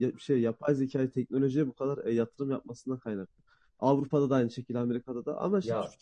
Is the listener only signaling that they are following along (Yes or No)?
Yes